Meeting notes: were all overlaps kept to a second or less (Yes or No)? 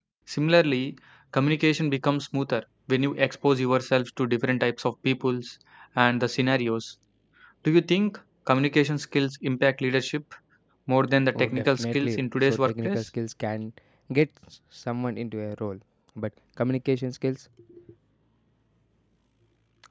No